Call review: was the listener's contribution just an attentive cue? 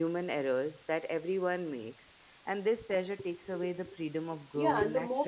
No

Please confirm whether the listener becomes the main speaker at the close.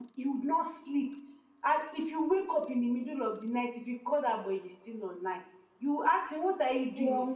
No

